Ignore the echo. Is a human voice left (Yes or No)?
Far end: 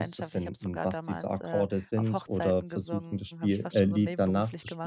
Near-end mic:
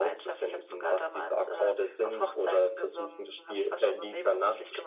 No